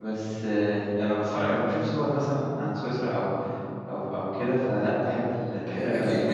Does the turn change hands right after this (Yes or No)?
Yes